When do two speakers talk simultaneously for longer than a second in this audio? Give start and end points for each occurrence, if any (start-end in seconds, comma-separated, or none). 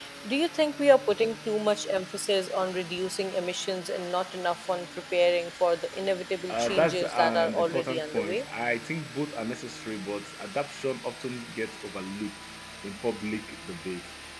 6.5-8.4